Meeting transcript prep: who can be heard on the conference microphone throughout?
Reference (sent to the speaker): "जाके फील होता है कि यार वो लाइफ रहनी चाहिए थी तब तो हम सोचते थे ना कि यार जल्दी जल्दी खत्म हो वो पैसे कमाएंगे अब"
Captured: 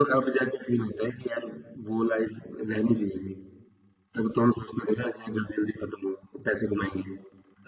echo only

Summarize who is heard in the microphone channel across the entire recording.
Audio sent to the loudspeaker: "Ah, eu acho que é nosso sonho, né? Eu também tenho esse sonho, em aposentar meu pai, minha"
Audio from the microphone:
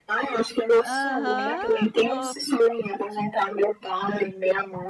both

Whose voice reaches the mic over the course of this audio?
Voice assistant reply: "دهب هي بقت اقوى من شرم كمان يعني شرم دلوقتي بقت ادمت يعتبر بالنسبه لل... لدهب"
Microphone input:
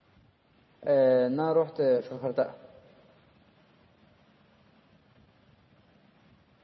user only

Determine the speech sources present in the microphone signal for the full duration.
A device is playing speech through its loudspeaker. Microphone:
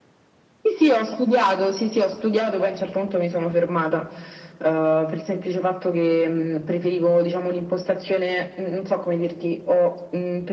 echo only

